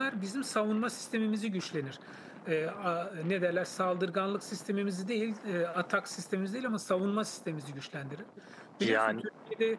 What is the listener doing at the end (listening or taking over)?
listening